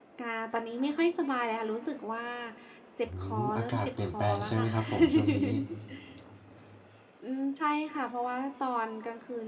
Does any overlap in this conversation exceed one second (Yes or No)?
Yes